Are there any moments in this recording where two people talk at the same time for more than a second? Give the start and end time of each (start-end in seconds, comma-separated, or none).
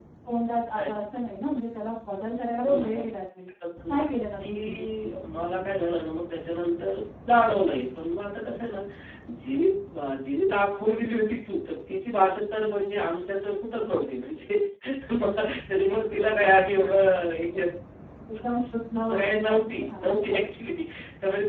19.0-20.4